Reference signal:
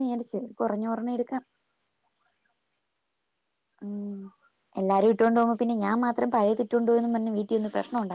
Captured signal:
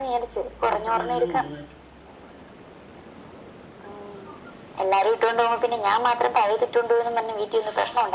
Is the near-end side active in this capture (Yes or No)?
Yes